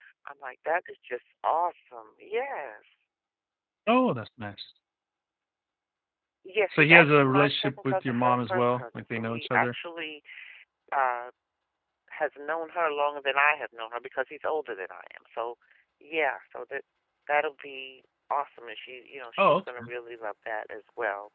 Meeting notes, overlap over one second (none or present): present